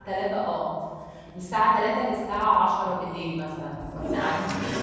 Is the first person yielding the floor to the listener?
Yes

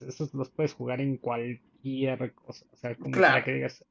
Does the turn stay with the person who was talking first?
Yes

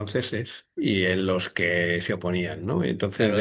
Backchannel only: No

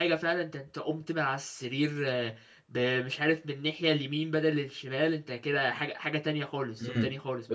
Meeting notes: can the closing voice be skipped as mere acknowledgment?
No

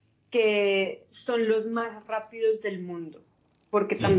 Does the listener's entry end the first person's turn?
No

